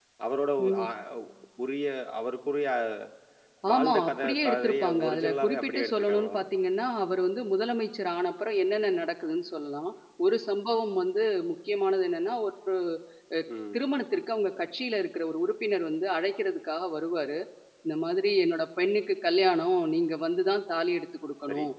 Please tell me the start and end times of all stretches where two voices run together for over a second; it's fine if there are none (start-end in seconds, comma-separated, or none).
3.7-6.4